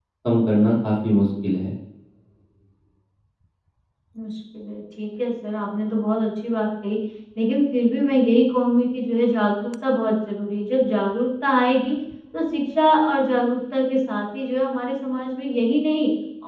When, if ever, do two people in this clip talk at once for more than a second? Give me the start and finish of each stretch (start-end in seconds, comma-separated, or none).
none